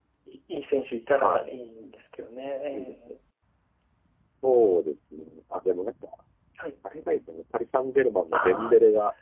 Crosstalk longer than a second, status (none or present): none